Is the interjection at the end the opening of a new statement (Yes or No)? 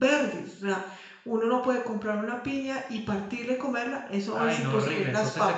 Yes